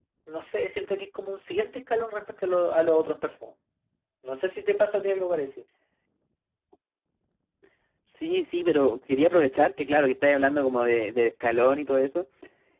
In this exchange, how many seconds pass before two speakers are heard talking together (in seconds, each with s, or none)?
none